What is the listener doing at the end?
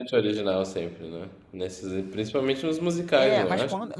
taking over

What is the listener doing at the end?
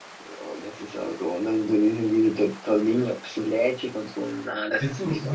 taking over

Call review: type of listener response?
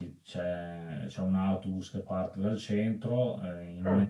listening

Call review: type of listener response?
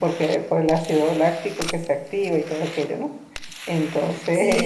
taking over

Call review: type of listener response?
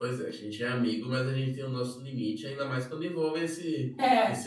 listening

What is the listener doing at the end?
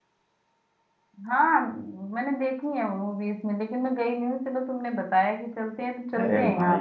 taking over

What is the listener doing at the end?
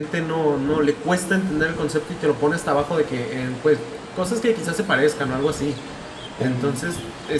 listening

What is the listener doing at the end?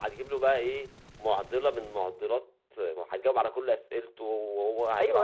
taking over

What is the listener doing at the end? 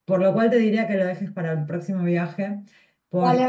taking over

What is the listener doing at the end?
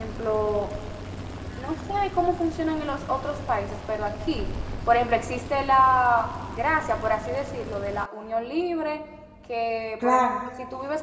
listening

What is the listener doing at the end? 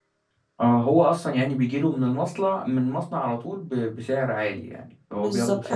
taking over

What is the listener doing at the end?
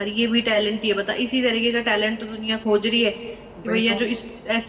listening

